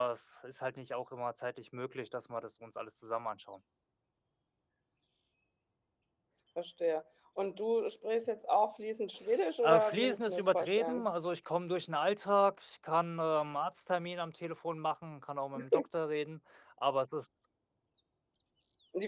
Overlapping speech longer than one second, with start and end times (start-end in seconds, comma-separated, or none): 9.6-11.1